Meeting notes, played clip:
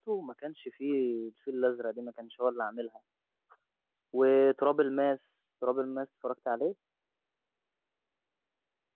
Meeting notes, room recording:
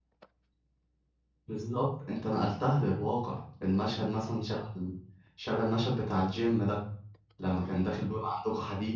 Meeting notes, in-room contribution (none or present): present